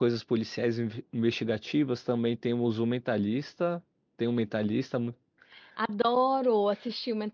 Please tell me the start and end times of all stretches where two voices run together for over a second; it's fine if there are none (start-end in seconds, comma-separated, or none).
none